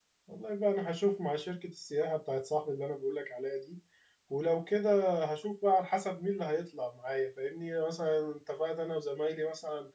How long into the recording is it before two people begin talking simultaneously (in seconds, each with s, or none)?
none